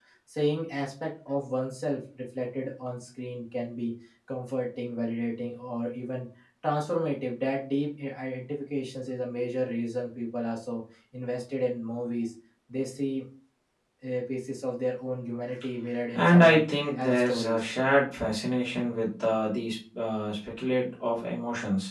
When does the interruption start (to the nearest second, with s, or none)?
16 s